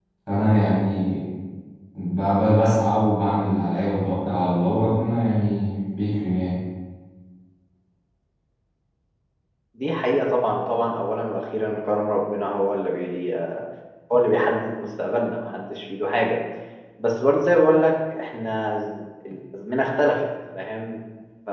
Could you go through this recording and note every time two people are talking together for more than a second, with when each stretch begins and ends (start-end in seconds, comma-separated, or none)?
none